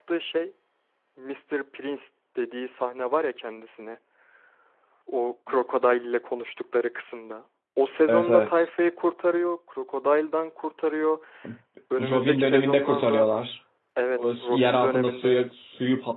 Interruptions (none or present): present